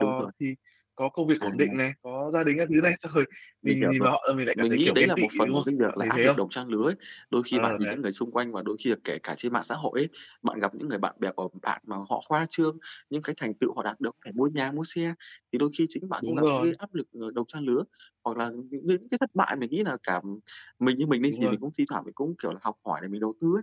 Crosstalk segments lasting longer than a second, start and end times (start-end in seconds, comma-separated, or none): 4.5-6.4